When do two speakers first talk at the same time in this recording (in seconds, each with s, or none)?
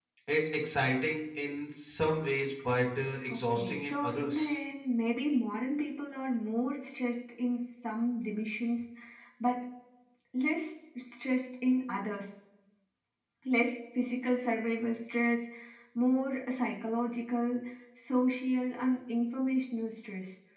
3.3 s